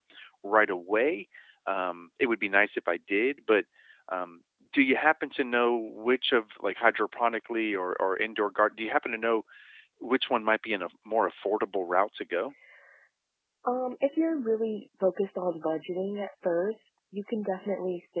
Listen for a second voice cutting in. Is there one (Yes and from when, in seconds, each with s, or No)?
No